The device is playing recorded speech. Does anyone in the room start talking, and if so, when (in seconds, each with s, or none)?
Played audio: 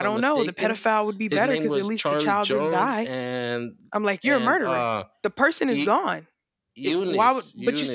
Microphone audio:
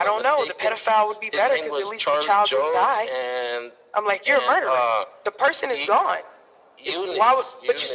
none